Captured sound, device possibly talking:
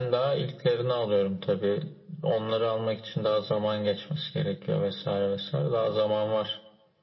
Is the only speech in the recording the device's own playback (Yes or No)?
Yes